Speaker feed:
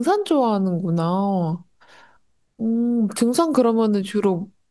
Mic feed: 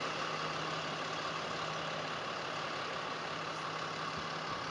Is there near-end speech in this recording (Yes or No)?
No